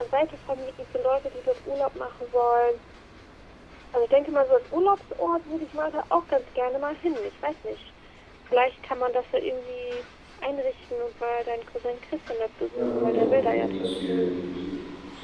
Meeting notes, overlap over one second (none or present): present